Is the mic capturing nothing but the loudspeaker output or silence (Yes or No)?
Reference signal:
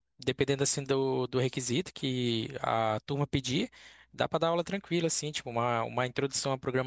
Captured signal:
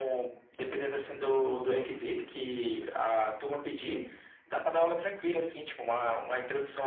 Yes